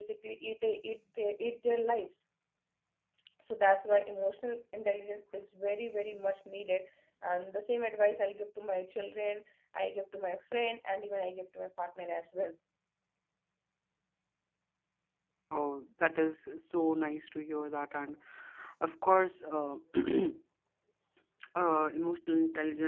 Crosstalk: none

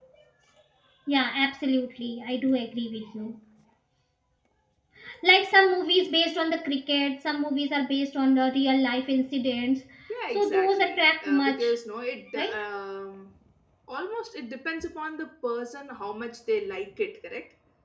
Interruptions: present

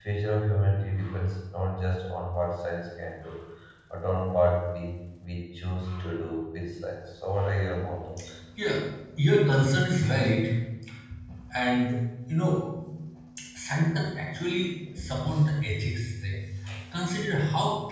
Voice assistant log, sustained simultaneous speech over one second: none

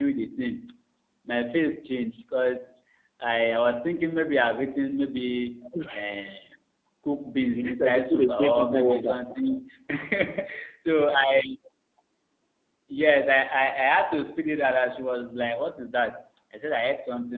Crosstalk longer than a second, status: present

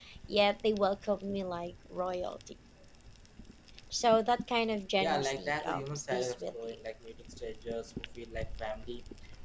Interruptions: present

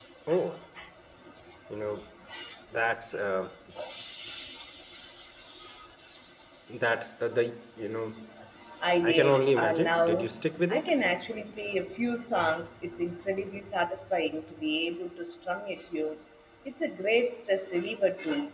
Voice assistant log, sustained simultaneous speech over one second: present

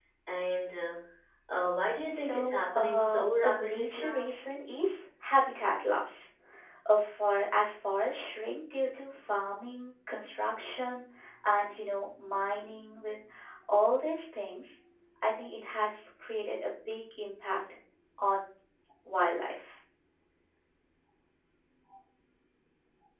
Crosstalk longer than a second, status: present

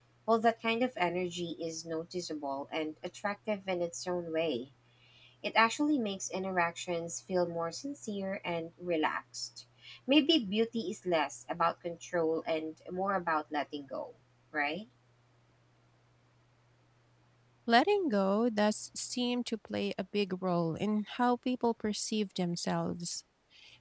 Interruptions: none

